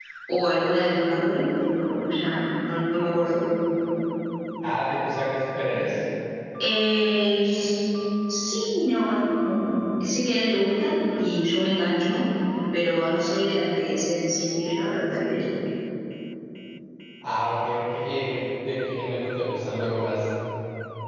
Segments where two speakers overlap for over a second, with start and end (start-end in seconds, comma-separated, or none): none